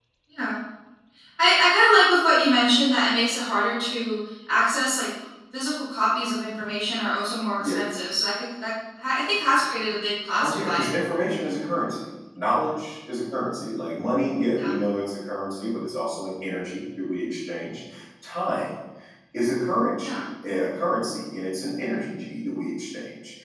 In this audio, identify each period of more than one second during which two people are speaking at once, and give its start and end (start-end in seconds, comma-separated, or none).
none